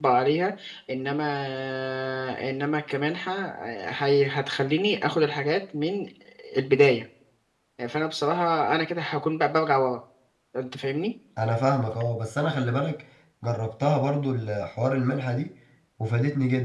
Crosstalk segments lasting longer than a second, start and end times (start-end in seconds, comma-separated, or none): none